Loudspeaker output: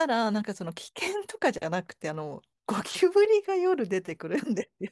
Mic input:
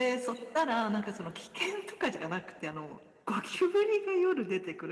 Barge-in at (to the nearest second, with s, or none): none